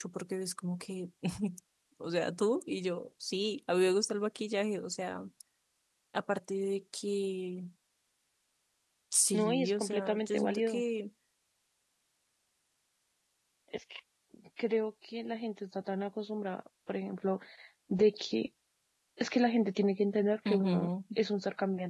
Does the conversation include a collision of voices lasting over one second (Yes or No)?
Yes